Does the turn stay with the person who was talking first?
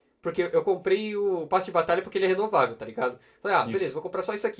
Yes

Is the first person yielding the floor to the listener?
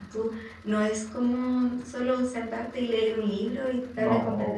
No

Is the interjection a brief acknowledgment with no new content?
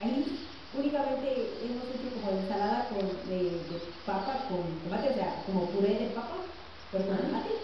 Yes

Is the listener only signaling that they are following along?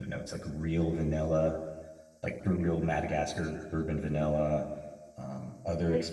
No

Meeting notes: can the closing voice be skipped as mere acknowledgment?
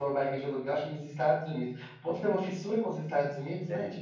No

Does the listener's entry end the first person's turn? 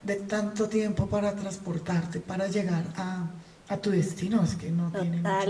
Yes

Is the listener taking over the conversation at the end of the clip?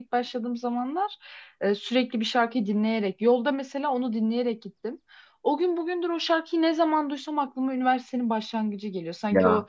No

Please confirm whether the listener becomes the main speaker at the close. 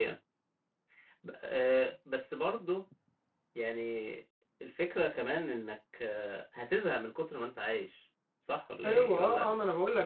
Yes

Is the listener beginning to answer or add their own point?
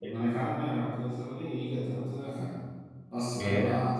No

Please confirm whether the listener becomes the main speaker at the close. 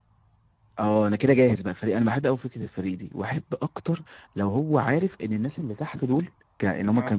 No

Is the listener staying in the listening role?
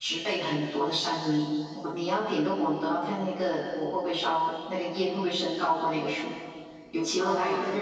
Yes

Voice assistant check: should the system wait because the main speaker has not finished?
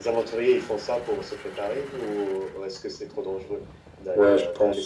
No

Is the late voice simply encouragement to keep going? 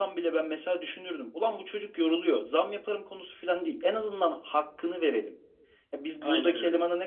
Yes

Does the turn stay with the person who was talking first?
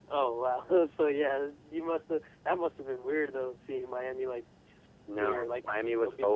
No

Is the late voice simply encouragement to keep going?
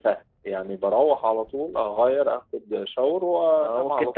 No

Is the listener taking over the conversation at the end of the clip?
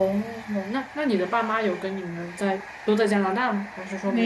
Yes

